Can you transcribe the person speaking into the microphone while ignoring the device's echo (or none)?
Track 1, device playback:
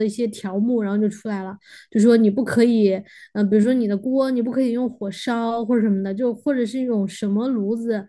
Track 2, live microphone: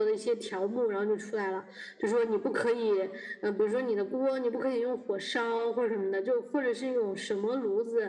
none